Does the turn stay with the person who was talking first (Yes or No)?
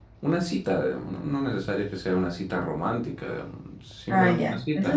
No